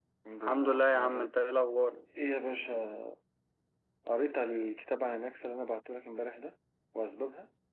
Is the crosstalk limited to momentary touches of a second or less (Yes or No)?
No